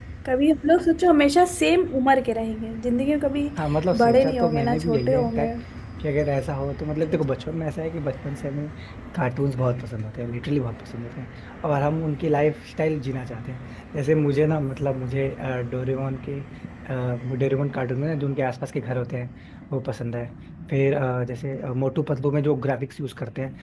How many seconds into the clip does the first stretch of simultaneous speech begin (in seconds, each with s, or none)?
4.0 s